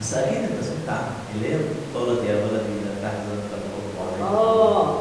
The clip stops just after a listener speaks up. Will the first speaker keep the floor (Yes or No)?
No